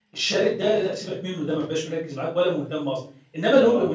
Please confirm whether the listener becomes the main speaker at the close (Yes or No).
No